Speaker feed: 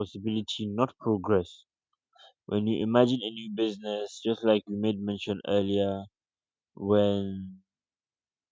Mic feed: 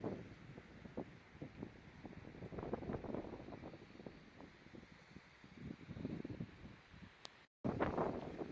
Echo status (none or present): none